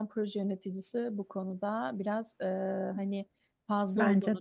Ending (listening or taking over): listening